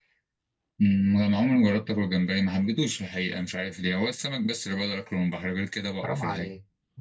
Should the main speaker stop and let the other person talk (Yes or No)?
Yes